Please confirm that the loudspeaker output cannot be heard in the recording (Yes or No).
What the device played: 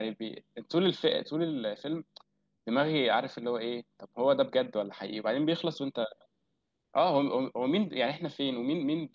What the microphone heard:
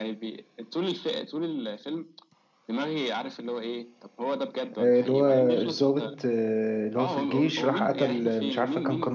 No